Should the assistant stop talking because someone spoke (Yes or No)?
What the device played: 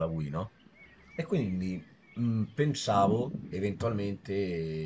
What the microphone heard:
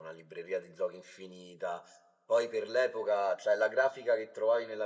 Yes